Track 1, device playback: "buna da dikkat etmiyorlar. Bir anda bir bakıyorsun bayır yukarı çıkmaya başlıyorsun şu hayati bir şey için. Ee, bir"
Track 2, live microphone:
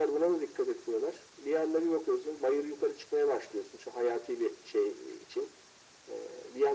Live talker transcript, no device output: none

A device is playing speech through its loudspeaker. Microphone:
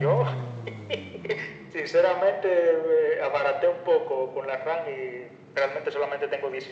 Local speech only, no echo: none

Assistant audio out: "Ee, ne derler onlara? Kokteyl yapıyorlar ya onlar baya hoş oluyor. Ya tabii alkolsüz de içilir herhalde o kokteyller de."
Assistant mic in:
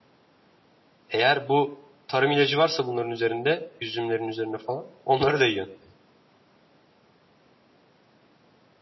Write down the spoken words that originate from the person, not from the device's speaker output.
Eğer bu tarım ilacı varsa bunların üzerinde, üzümlerin üzerine falan, onları da yiyorsun.

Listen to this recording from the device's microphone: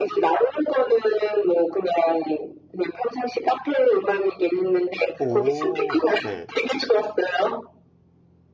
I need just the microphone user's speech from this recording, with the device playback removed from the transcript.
오, 네.

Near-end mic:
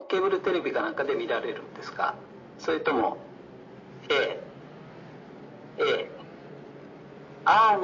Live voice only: none

